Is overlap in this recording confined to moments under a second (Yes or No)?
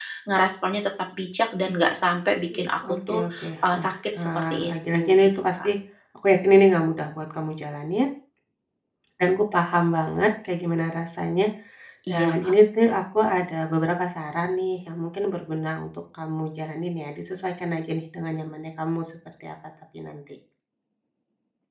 No